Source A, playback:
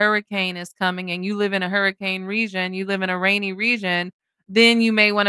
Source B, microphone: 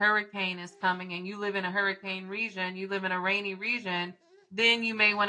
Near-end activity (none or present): none